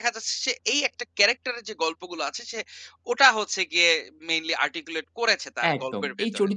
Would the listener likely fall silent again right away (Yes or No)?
No